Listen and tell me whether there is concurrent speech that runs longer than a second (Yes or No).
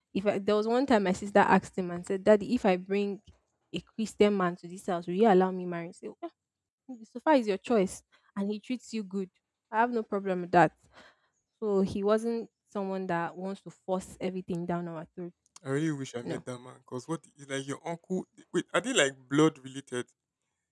No